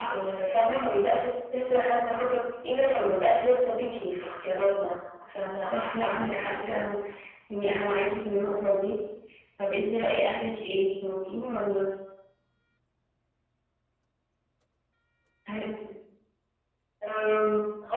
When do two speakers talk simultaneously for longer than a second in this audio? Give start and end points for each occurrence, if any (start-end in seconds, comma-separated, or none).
5.6-6.8